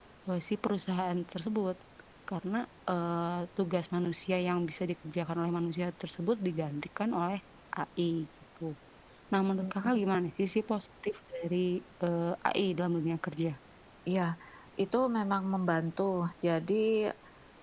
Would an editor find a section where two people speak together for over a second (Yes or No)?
No